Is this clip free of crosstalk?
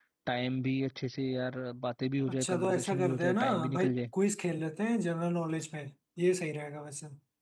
No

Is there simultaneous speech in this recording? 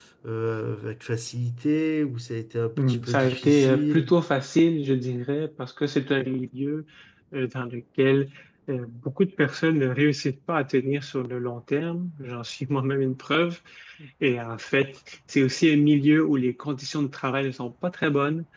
Yes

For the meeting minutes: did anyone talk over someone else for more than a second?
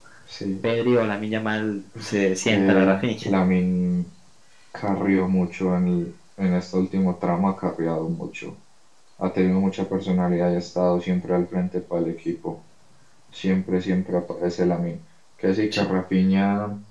Yes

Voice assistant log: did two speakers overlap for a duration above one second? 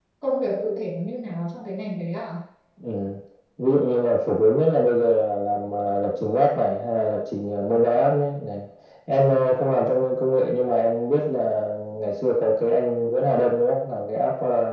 No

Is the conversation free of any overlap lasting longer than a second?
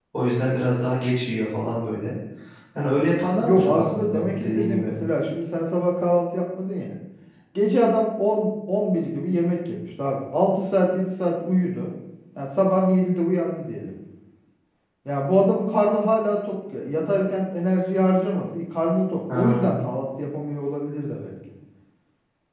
No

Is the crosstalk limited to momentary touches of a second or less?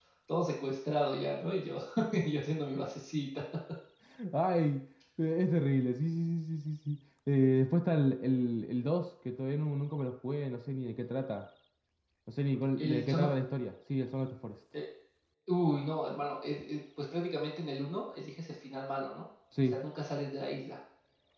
Yes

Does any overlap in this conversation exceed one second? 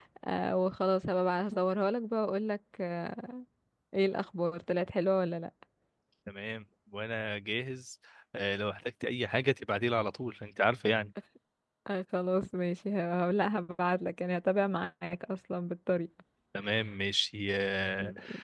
No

